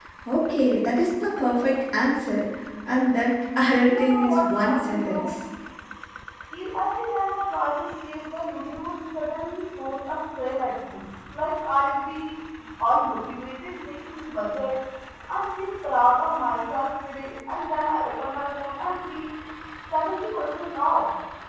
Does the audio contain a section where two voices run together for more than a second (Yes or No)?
Yes